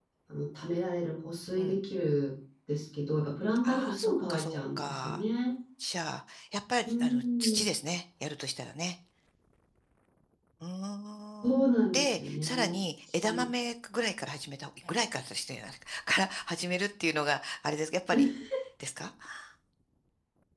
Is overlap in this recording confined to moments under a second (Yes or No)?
No